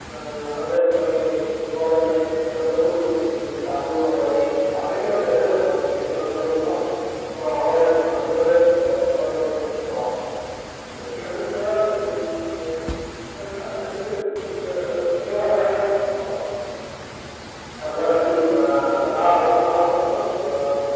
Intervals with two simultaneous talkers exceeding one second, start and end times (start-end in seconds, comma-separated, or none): none